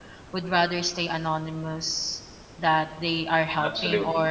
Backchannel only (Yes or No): Yes